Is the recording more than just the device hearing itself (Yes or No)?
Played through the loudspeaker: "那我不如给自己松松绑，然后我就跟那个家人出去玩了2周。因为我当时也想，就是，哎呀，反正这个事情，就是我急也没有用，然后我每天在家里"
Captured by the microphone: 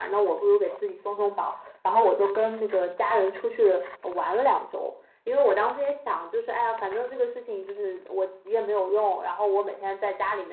No